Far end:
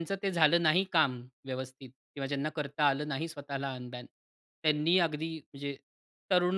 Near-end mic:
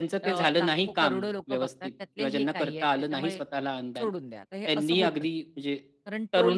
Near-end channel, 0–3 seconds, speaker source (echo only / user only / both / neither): both